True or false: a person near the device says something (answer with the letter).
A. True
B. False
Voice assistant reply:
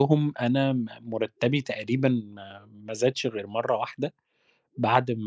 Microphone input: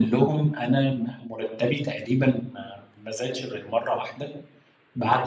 B